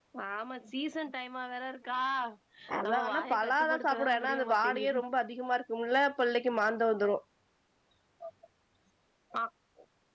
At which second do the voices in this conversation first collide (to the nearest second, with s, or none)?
3 s